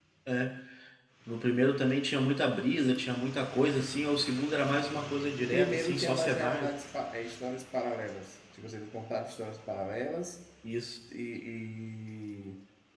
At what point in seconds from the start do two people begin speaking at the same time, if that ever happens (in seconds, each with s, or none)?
5.4 s